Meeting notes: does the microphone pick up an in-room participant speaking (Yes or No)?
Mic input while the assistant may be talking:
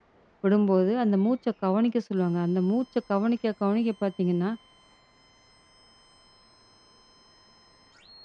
Yes